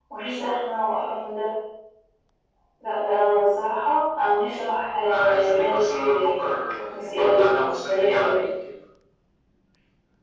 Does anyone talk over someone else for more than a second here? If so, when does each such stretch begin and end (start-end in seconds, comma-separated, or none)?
5.1-6.5, 6.9-8.4